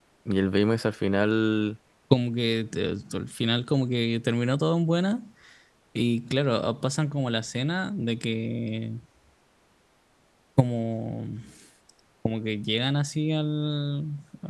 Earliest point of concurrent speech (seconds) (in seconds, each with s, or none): none